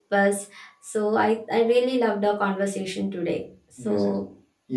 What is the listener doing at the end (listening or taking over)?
taking over